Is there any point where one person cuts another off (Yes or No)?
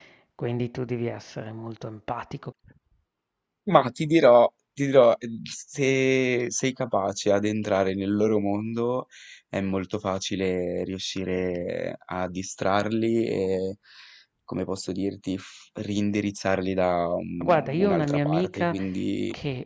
Yes